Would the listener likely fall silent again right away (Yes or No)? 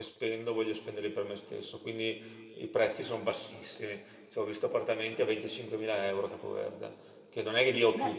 Yes